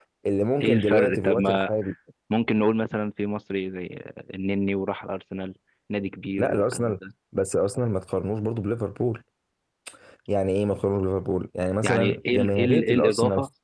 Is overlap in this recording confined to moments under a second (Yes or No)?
No